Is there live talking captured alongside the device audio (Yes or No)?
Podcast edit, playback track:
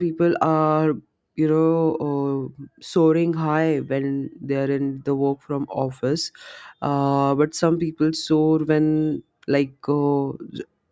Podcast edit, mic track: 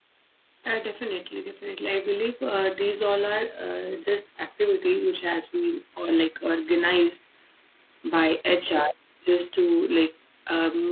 Yes